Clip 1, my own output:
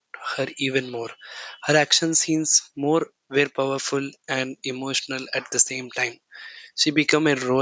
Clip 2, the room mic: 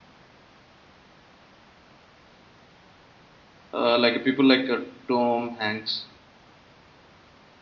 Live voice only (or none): uh, like people like uh, Tom Hanks,